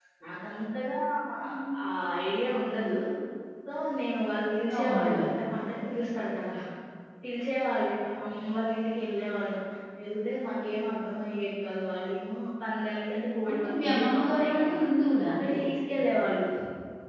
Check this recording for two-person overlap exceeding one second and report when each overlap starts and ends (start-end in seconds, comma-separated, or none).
13.5-14.8